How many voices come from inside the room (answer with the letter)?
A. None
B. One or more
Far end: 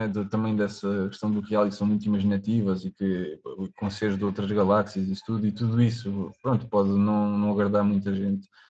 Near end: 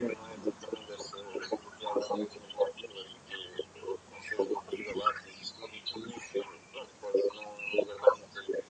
A